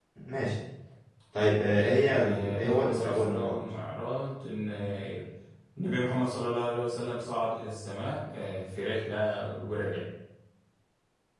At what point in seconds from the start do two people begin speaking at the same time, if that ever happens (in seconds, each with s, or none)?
1.7 s